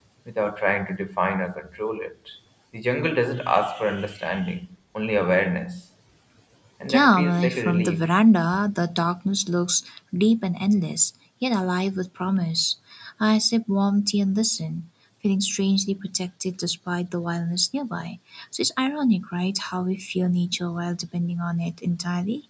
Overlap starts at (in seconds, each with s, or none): 6.9 s